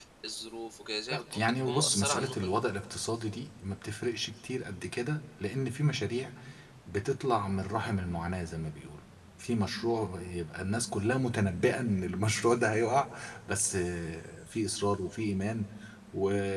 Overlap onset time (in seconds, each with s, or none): 1.1 s